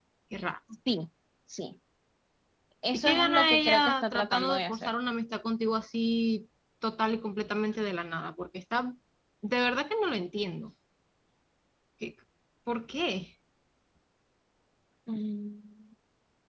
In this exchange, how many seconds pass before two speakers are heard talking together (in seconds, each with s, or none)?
2.9 s